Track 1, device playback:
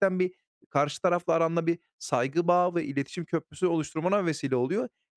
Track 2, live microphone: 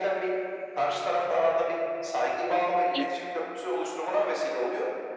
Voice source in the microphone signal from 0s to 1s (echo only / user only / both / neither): echo only